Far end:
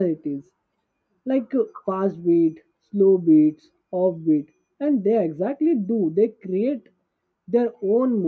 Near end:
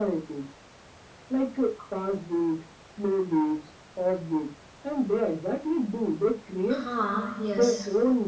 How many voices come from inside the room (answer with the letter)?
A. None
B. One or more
B